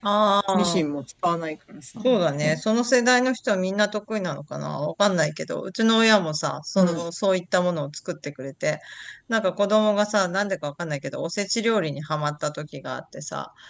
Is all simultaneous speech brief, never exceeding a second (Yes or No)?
Yes